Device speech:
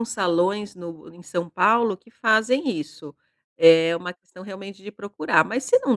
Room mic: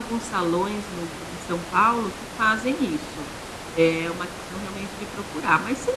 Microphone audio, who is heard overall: echo only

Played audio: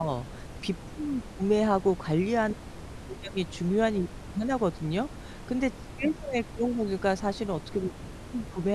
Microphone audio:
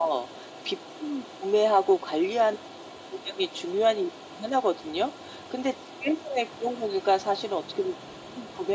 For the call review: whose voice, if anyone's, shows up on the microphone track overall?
echo only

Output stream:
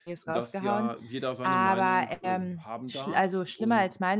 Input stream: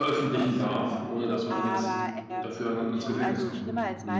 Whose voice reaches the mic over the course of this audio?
both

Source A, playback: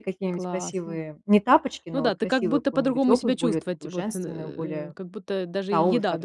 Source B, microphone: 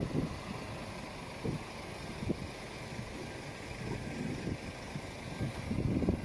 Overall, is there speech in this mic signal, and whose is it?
neither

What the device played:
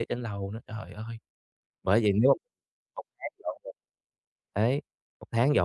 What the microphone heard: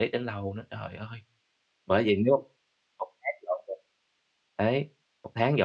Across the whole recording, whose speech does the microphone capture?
echo only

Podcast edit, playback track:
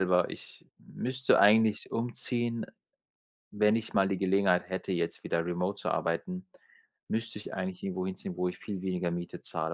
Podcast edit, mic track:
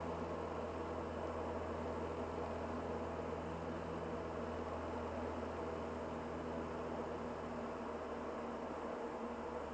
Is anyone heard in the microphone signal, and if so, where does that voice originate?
neither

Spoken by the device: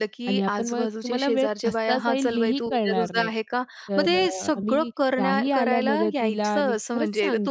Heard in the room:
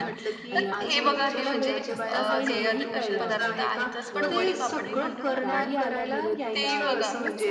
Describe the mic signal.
both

